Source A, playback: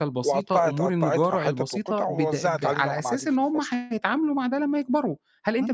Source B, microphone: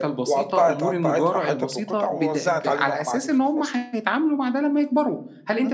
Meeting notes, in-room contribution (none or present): none